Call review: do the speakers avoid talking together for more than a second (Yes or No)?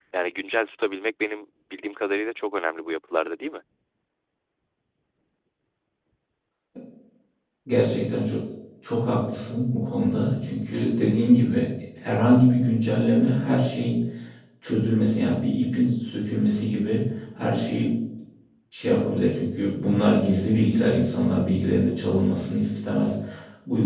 Yes